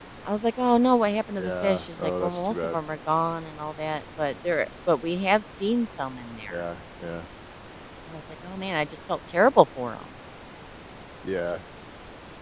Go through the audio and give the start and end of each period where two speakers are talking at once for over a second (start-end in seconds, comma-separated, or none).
1.4-2.8